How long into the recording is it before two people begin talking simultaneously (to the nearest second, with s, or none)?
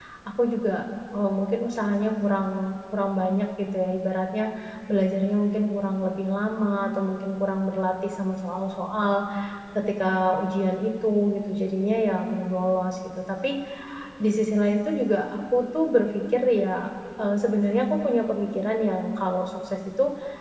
none